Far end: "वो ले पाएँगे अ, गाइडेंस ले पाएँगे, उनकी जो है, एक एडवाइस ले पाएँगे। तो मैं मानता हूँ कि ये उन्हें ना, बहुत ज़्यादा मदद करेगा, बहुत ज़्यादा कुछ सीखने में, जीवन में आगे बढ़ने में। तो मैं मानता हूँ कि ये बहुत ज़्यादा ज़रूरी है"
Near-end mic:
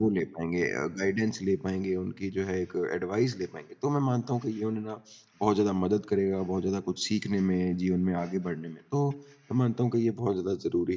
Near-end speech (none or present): none